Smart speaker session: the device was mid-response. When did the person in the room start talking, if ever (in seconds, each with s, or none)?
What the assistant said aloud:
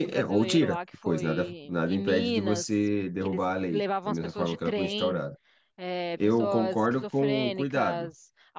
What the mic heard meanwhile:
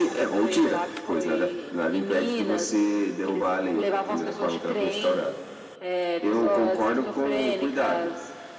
none